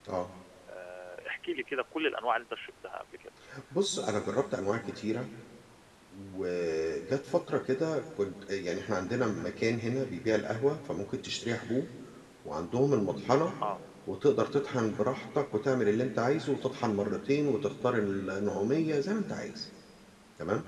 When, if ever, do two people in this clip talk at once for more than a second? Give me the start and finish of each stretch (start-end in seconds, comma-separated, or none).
none